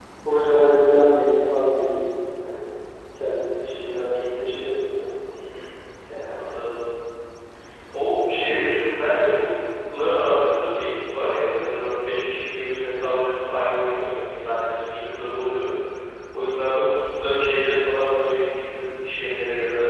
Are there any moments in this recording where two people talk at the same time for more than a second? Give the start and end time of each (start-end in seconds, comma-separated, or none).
none